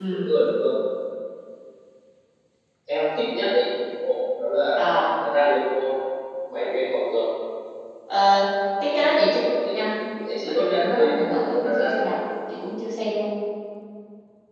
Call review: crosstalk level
present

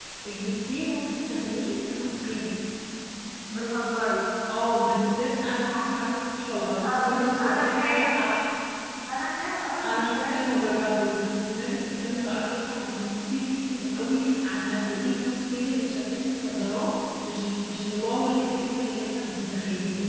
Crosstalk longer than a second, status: present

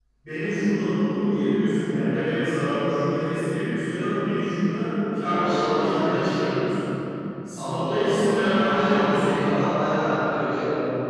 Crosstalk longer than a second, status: present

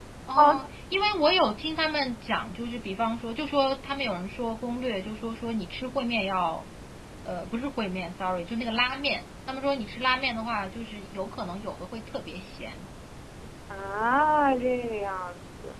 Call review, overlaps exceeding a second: none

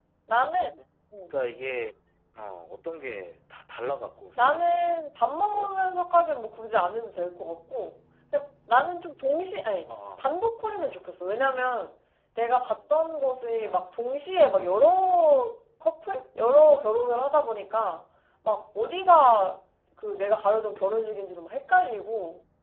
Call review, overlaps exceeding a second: none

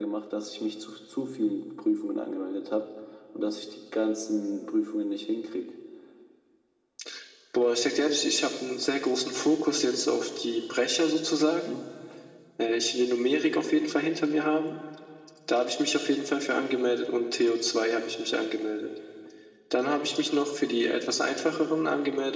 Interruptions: none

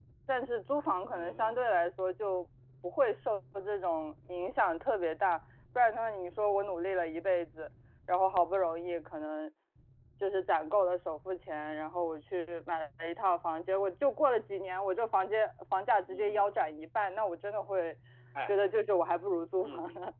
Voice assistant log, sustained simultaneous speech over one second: none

